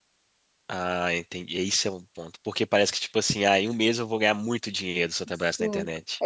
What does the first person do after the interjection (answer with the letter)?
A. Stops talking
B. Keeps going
A